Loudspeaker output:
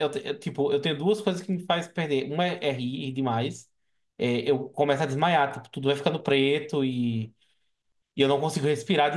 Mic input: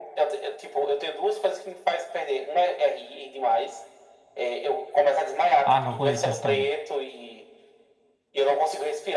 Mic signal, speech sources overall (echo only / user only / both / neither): both